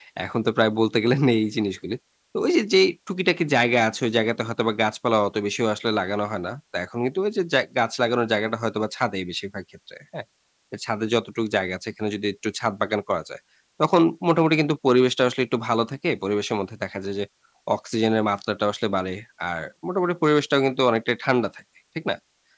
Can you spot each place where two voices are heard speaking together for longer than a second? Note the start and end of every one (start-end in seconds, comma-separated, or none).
none